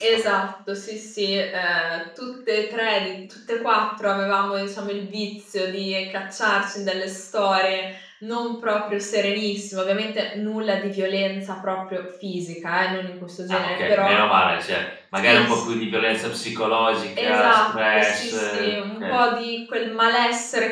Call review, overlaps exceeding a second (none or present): present